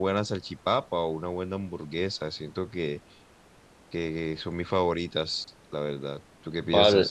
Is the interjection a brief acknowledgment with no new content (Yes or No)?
No